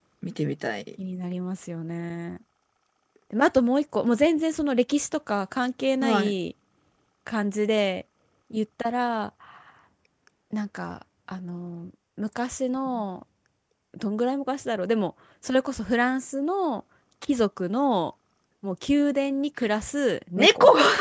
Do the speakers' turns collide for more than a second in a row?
No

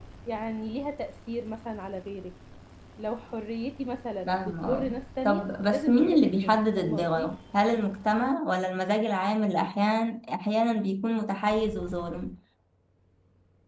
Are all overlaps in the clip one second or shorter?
No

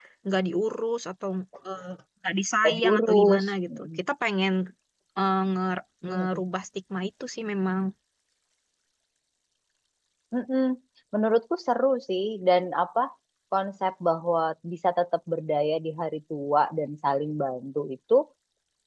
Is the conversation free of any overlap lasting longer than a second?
No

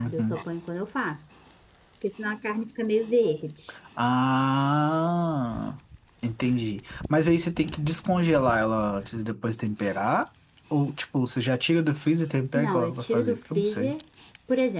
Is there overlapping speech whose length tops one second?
Yes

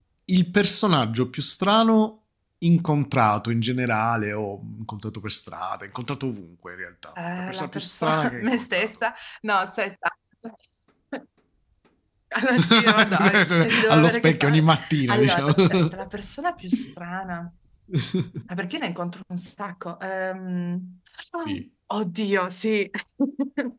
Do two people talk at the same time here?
Yes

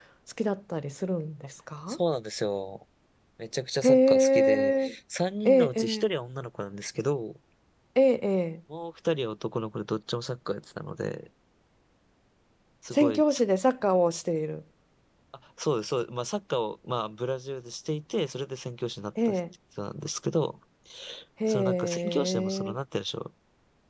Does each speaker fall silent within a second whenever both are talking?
No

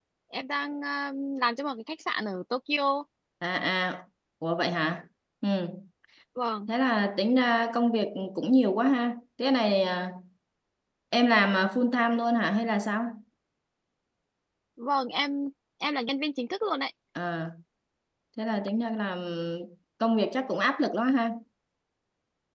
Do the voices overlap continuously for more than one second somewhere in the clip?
No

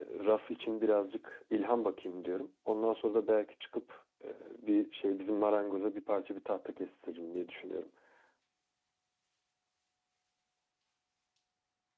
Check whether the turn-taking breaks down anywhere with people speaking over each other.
No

